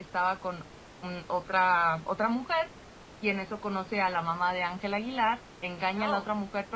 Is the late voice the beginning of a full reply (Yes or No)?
No